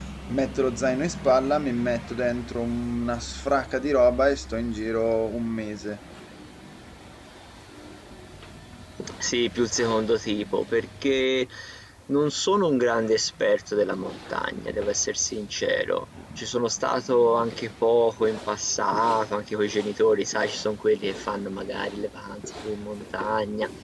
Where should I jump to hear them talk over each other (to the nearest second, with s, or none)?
none